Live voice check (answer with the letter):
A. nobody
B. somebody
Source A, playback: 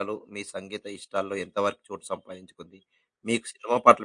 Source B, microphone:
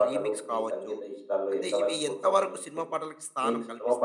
B